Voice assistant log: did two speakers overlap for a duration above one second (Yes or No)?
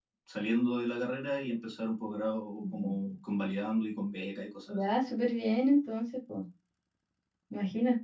No